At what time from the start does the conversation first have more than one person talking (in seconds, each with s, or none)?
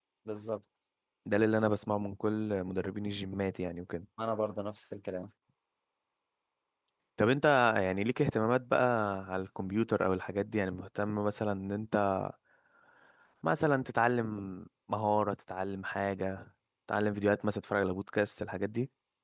none